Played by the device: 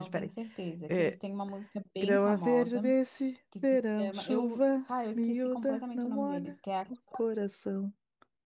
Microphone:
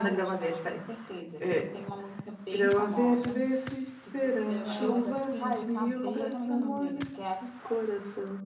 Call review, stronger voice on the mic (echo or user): echo